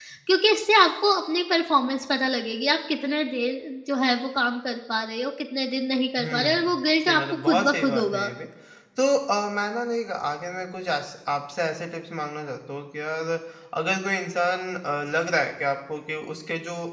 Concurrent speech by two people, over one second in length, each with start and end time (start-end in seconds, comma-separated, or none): 7.1-8.3